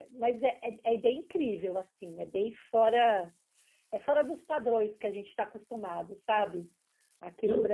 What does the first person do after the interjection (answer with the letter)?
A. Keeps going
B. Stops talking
B